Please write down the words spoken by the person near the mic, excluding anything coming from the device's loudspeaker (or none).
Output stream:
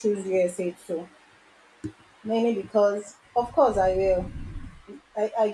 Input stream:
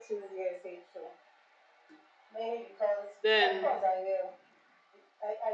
Then